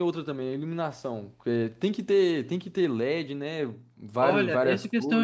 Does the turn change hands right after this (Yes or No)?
Yes